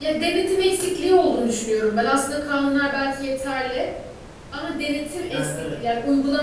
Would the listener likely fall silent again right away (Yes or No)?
Yes